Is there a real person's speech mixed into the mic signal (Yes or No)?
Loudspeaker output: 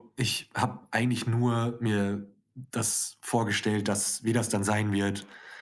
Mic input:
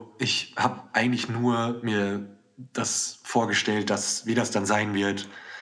No